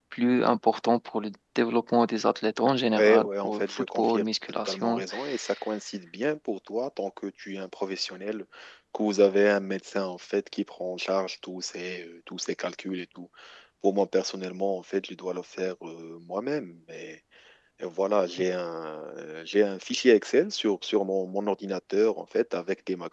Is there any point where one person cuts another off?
Yes, from 3.0 s

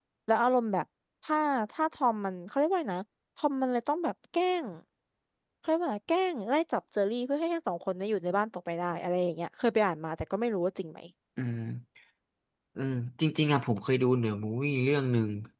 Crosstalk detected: No

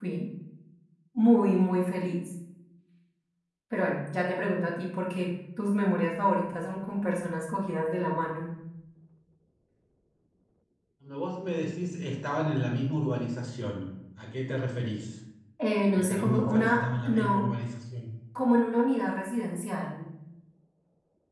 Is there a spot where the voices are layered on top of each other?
Yes, from 16.0 s

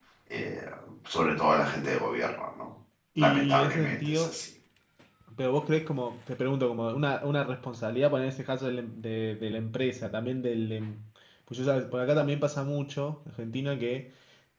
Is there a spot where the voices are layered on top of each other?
Yes, from 3.2 s

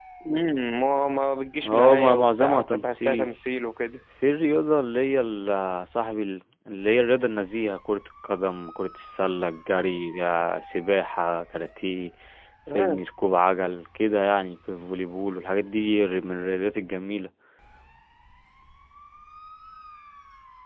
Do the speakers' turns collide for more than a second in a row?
Yes, from 1.6 s

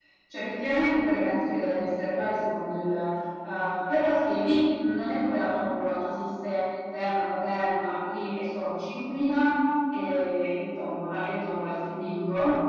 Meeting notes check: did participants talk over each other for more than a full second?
No

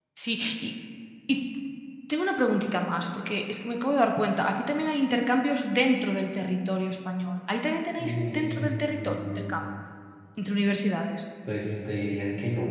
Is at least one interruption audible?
Yes, from 8.0 s

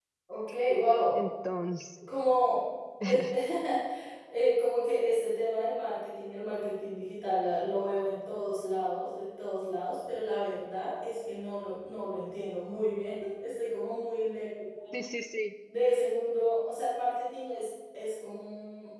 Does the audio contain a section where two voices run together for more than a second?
No

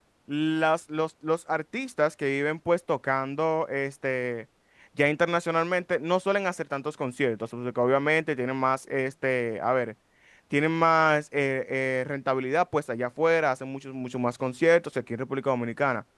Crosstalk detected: No

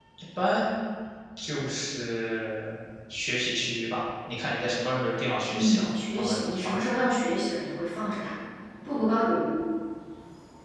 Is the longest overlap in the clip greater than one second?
Yes, from 5.5 s

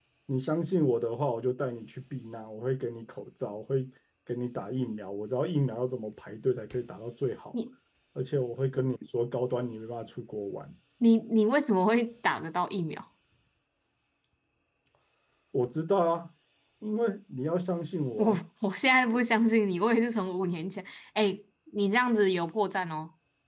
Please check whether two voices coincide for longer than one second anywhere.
No

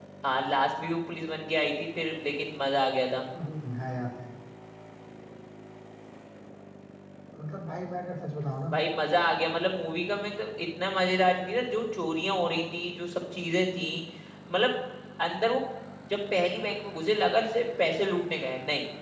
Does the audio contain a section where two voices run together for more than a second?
No

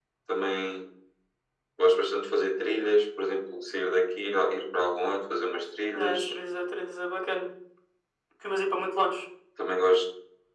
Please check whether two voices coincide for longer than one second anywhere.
No

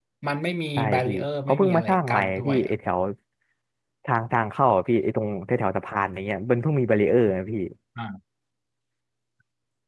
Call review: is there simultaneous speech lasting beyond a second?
Yes, from 0.8 s

